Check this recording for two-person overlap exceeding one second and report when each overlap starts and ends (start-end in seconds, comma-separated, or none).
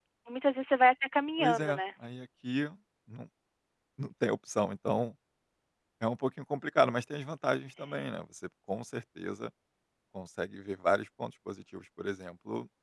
none